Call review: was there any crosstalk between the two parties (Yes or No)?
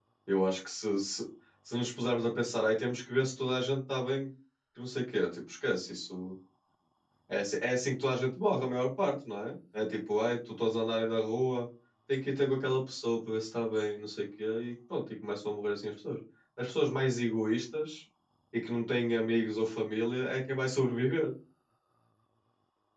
No